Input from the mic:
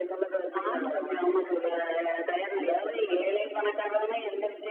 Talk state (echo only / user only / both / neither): echo only